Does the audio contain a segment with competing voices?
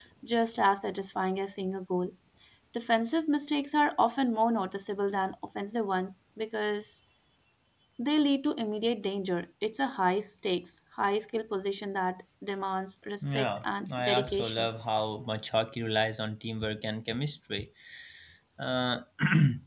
Yes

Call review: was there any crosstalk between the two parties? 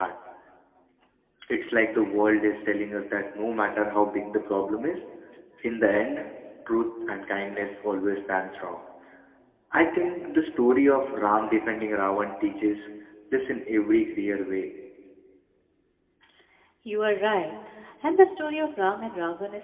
No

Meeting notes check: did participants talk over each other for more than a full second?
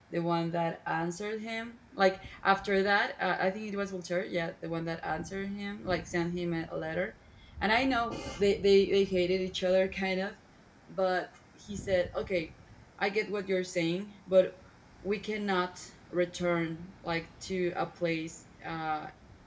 No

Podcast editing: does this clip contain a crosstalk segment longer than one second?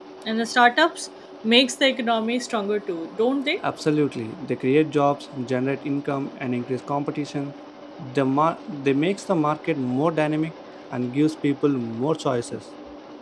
No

